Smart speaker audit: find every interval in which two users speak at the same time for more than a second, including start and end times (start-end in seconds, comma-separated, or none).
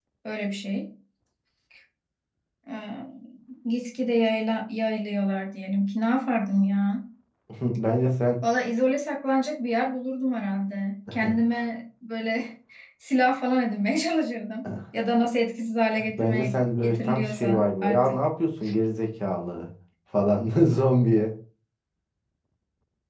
16.2-18.2